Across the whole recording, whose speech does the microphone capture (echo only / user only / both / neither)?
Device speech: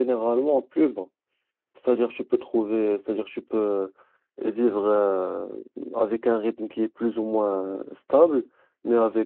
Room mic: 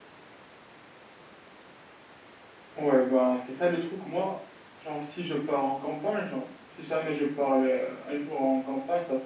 user only